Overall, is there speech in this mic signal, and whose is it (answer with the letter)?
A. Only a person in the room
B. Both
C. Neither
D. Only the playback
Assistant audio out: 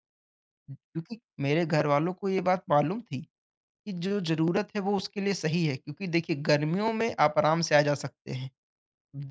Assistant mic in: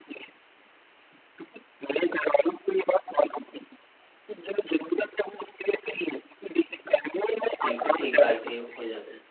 B